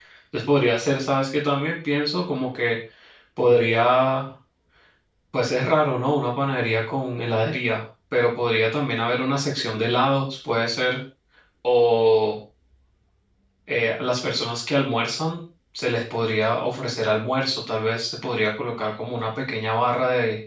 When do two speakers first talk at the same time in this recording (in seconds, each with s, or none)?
none